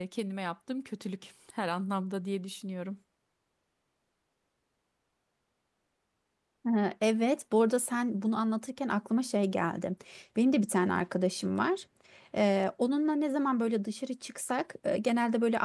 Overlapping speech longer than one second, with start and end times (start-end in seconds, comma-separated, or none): none